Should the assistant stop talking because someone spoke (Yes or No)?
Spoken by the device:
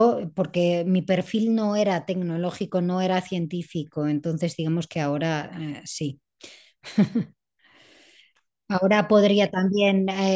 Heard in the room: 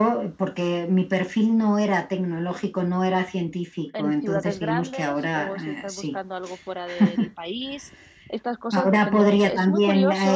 Yes